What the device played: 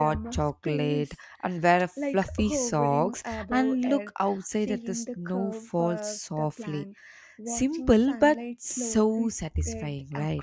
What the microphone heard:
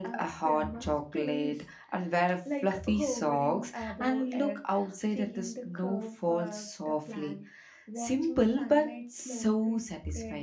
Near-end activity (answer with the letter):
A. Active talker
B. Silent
B